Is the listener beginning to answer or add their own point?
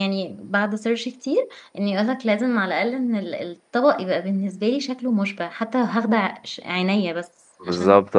Yes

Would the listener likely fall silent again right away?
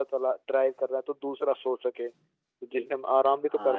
No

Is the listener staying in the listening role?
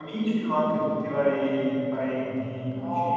No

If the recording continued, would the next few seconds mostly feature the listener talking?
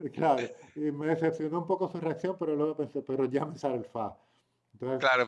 Yes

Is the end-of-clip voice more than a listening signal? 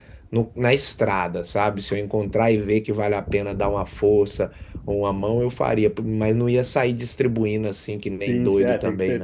Yes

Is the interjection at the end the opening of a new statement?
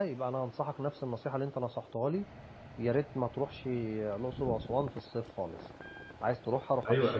Yes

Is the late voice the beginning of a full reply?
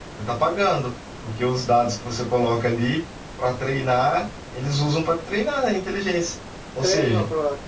Yes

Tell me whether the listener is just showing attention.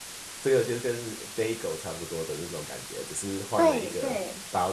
No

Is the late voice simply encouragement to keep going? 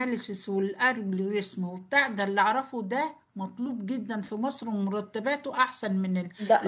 Yes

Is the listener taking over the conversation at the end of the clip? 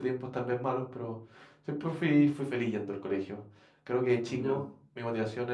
No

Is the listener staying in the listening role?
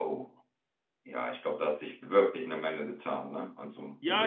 No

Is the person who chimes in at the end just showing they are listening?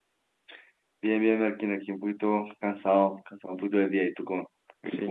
No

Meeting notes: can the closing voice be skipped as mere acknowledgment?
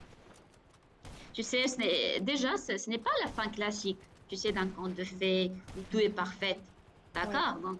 Yes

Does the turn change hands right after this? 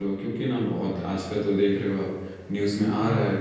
No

